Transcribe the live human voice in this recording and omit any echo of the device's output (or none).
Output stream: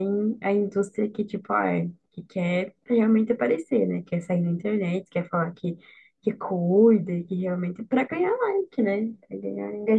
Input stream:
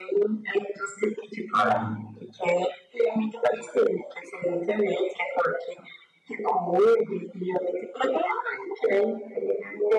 uhum.